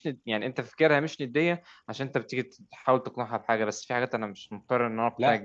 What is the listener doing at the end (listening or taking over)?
taking over